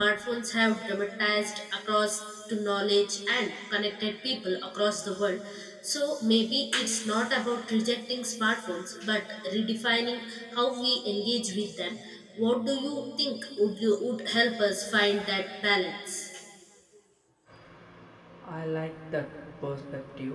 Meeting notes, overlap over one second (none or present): none